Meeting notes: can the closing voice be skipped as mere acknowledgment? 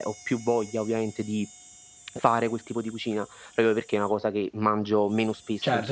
No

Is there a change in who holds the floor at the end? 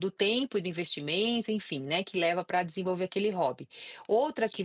No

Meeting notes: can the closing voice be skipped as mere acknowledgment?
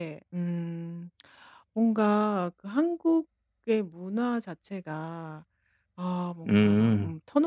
Yes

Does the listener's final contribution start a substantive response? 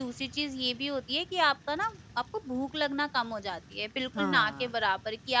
No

